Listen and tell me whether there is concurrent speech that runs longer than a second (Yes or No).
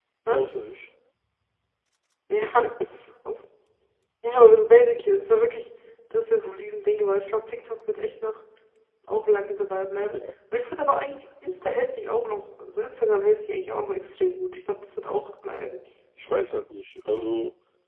No